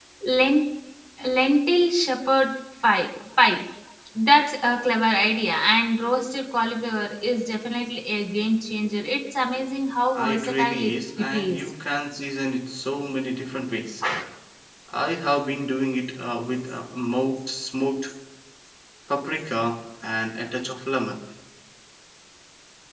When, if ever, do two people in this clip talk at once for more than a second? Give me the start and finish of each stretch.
10.2-11.7

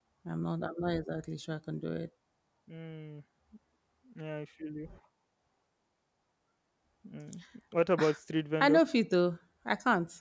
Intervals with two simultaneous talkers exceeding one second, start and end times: none

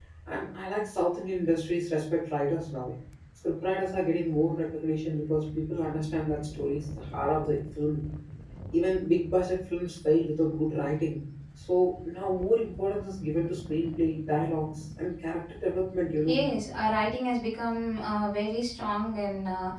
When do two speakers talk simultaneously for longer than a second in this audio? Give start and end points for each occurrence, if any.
none

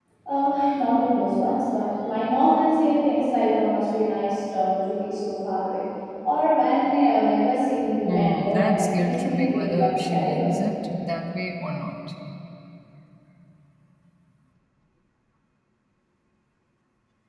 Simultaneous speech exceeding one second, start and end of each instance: 8.0-10.6

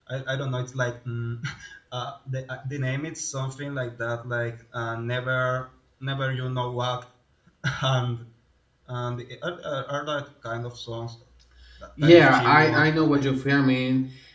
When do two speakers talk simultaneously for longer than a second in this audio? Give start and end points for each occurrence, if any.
12.0-13.2

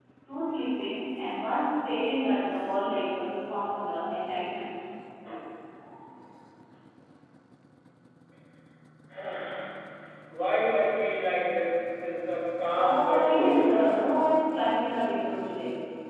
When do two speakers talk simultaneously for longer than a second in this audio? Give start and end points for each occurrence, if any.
12.7-14.0

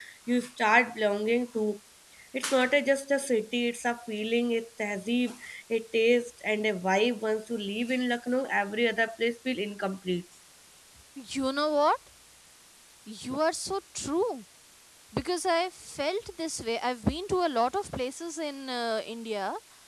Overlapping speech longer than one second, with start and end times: none

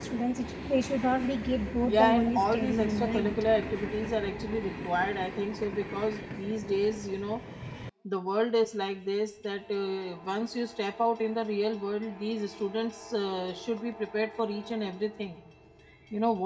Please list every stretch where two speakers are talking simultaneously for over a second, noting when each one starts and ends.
1.8-3.3

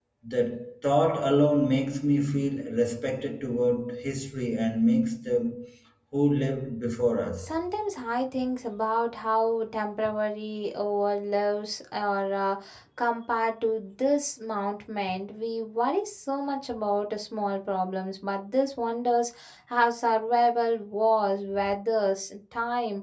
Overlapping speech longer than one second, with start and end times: none

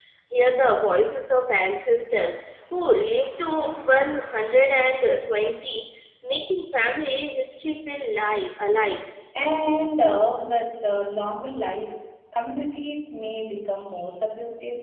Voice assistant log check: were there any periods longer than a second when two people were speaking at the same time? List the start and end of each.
none

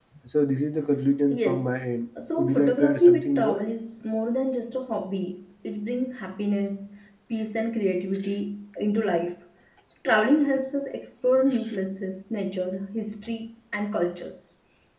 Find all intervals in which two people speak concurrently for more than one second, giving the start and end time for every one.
2.4-3.6

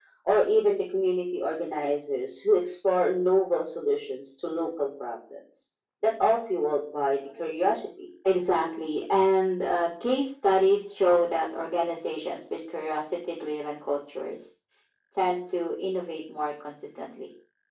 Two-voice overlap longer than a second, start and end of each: none

